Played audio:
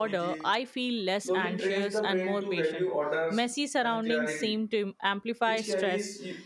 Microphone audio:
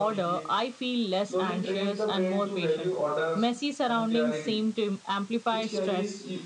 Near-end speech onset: none

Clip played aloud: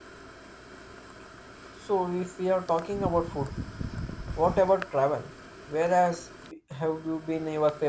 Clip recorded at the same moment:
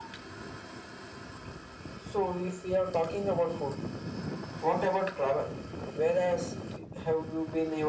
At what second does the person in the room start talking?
none

